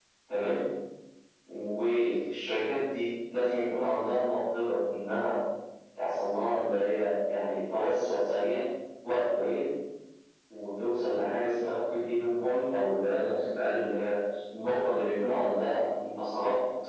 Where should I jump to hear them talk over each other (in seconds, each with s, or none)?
none